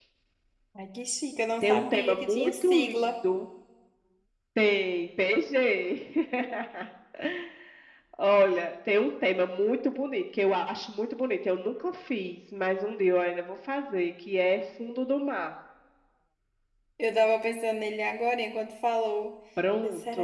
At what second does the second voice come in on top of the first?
1.6 s

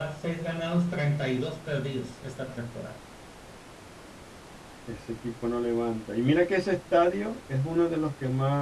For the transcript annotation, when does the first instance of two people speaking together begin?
none

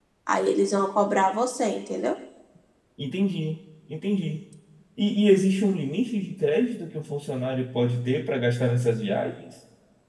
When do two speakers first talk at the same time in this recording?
none

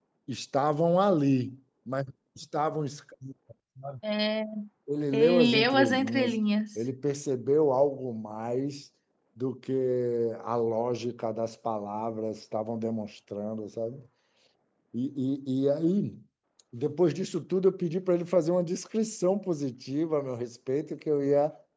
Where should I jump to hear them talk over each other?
5.1 s

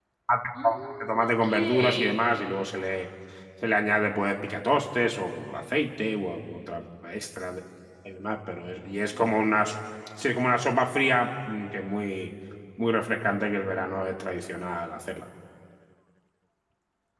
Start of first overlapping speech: 0.6 s

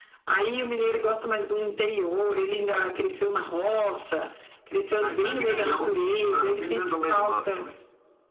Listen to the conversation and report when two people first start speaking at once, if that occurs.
5.0 s

